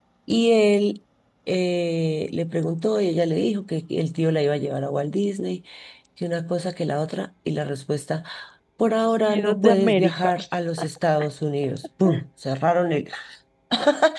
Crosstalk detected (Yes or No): Yes